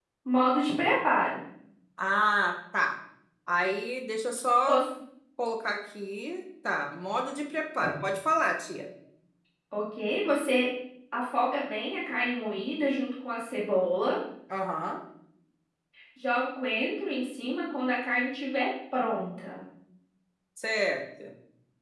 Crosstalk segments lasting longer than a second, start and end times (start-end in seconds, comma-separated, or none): none